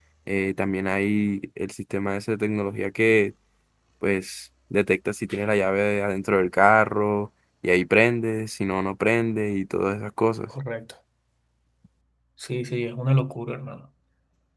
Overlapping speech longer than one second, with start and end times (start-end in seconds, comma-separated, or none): none